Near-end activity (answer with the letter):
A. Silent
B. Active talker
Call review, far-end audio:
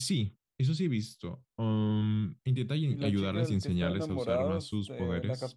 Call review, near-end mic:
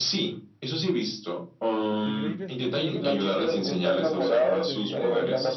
B